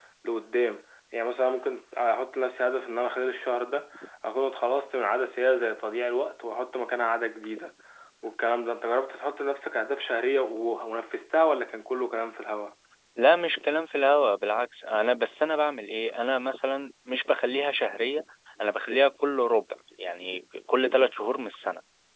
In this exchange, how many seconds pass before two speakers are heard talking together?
none

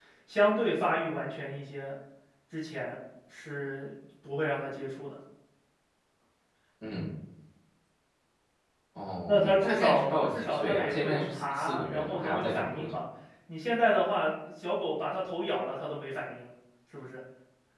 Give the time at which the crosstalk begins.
9.2 s

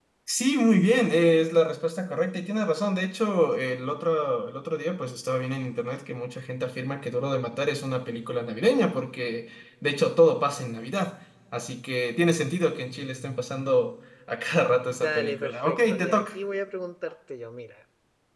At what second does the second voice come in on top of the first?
14.9 s

